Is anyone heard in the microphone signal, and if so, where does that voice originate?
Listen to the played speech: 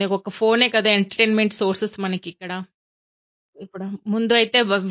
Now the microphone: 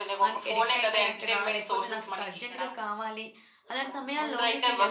both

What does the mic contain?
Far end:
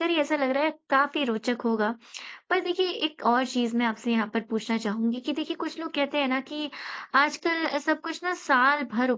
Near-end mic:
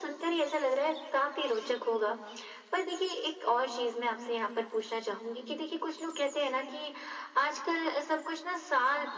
echo only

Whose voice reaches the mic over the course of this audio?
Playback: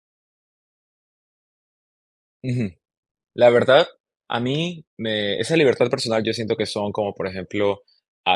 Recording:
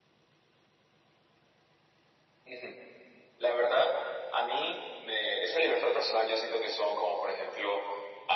echo only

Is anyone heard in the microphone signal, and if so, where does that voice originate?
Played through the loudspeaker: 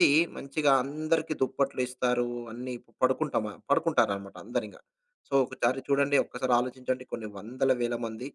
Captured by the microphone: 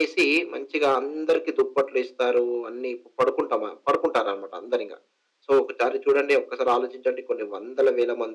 echo only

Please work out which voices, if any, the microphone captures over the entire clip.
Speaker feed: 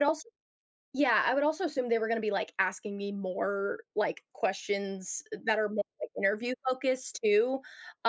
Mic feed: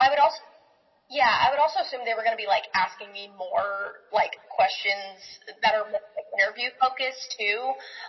echo only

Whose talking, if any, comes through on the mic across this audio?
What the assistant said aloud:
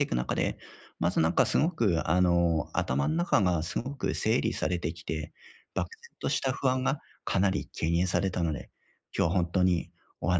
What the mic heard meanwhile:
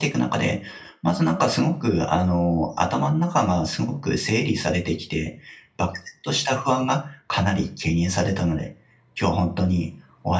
echo only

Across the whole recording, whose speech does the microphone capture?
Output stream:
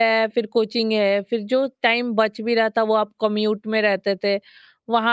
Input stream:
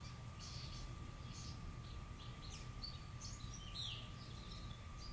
neither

